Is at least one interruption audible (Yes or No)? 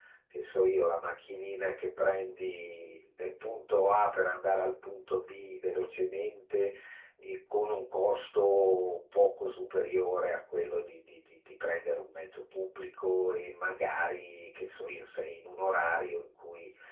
No